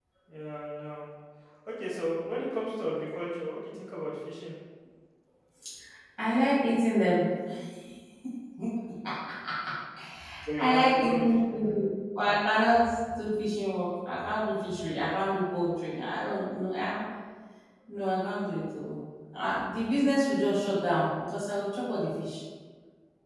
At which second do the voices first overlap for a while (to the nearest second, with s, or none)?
11 s